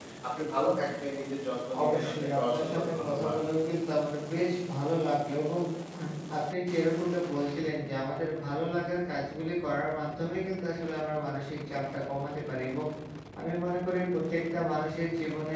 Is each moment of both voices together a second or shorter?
No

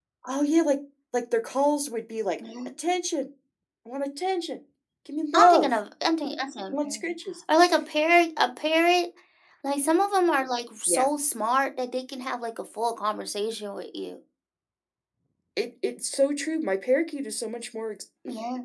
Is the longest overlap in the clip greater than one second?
No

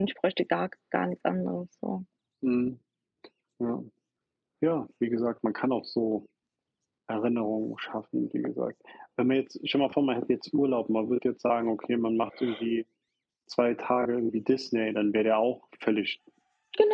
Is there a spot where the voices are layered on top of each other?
No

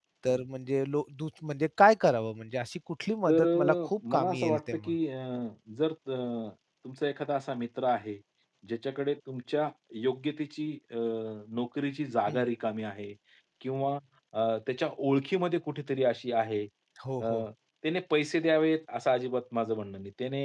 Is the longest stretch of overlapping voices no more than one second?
No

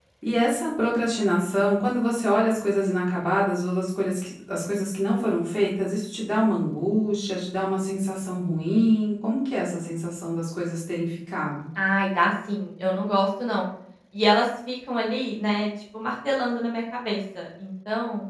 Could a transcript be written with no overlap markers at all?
Yes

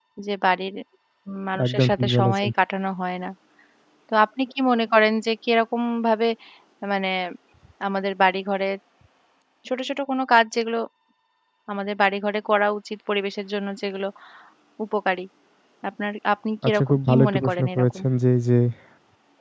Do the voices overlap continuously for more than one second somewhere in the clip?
Yes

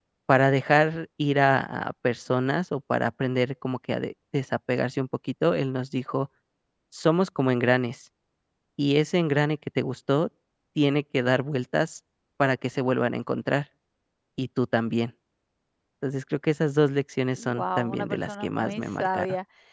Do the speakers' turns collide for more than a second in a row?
Yes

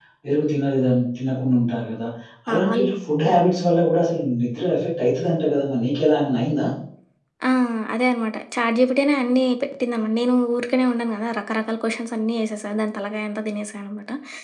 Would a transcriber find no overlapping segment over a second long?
Yes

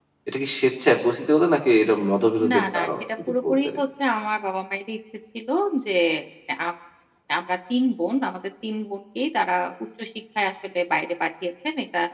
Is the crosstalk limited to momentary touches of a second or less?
No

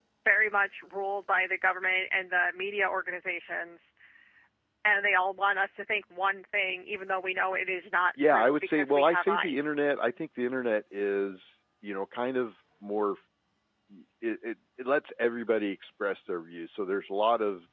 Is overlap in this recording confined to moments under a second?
No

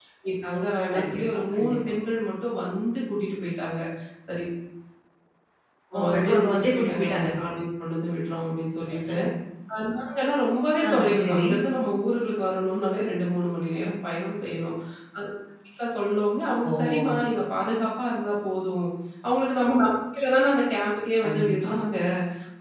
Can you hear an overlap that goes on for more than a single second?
Yes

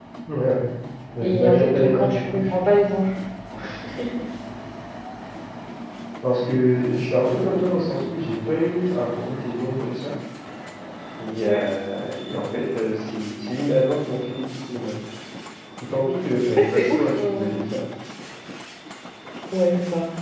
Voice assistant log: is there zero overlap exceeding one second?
No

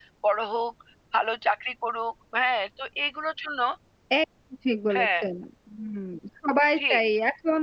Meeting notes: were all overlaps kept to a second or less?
Yes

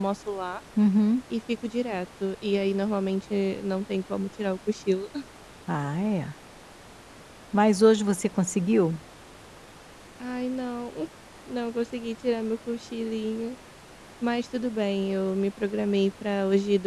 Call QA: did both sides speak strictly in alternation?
Yes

